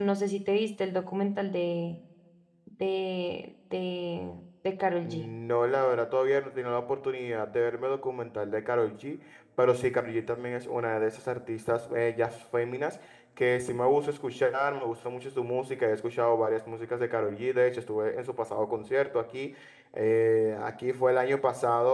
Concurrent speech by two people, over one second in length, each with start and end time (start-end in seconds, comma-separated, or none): none